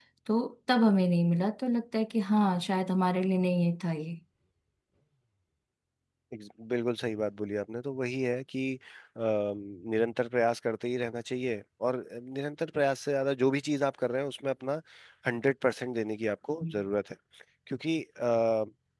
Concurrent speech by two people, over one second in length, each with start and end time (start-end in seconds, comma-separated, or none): none